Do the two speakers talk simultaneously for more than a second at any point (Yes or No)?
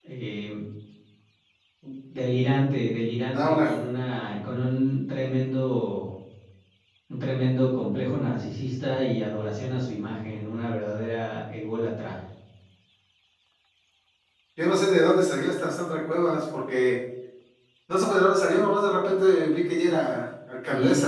No